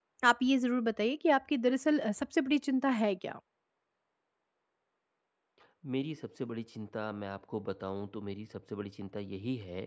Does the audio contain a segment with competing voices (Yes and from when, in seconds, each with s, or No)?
No